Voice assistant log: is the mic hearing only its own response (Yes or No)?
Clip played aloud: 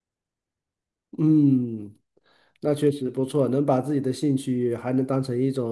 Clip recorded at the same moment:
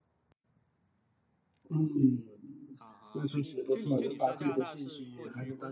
No